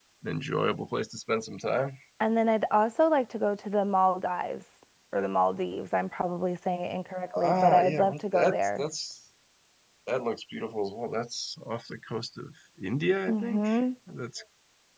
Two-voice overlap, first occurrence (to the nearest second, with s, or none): 7 s